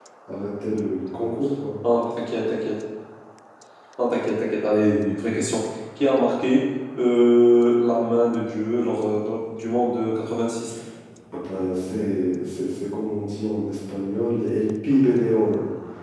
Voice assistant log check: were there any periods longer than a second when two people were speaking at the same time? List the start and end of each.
none

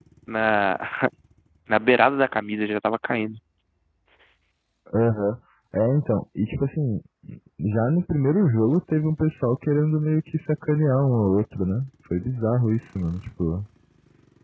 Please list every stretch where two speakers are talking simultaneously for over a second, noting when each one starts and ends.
none

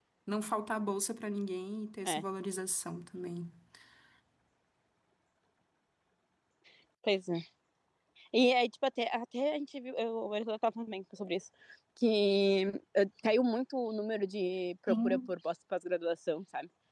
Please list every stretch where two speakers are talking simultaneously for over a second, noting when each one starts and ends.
none

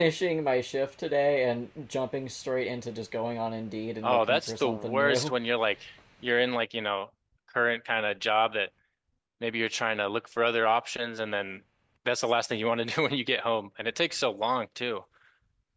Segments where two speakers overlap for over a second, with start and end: 4.0-5.3

